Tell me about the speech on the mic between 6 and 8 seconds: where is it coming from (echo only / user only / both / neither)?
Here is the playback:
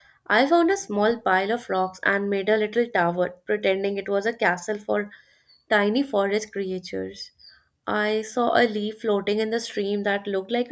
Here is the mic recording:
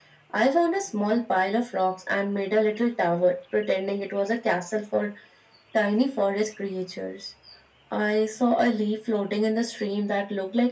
echo only